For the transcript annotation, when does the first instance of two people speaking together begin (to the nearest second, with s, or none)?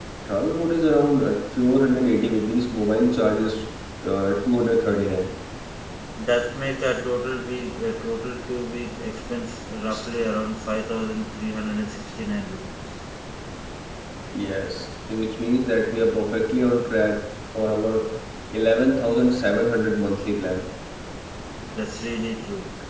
none